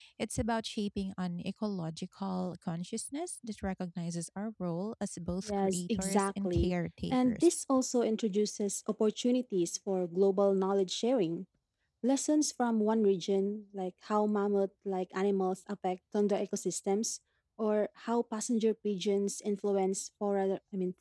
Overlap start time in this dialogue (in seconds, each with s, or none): 5.5 s